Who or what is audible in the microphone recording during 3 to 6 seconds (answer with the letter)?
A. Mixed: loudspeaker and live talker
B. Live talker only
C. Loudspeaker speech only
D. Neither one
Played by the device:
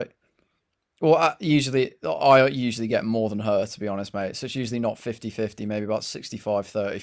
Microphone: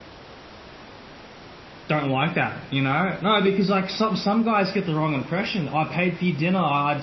B